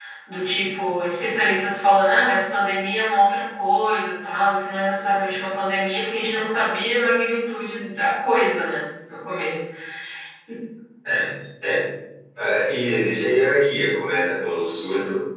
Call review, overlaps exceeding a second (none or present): none